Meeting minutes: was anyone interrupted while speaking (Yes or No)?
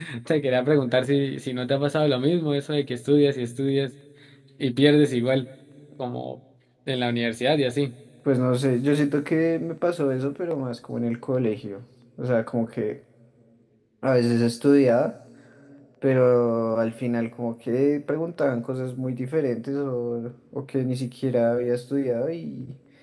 No